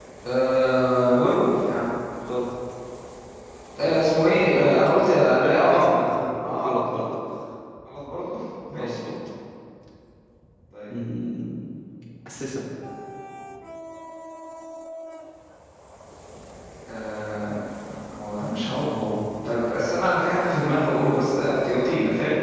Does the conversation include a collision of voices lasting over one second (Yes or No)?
Yes